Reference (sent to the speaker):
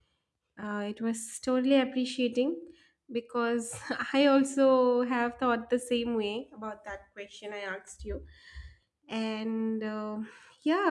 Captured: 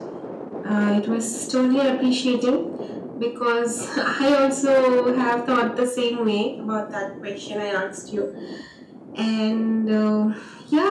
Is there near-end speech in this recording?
No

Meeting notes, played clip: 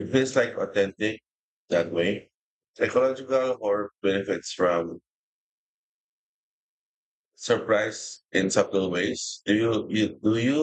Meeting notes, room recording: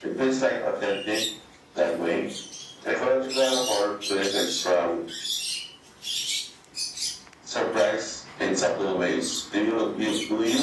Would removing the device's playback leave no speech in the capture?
Yes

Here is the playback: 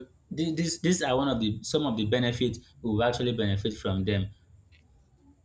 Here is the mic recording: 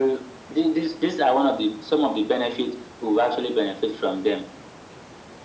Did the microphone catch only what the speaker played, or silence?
Yes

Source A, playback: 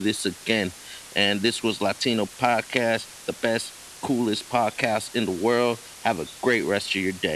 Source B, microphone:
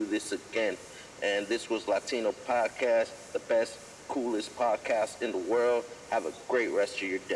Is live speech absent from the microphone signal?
Yes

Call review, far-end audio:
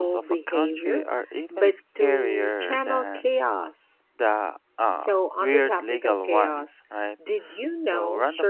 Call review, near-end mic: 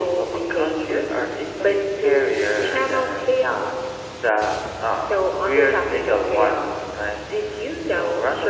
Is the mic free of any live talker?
Yes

